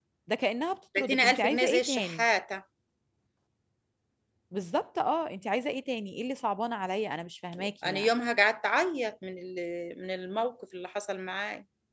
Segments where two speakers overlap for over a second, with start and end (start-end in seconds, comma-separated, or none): 1.0-2.2